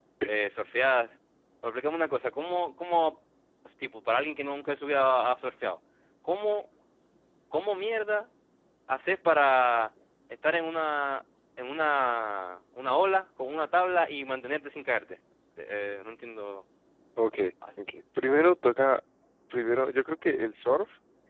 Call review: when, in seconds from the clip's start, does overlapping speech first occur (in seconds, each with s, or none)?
none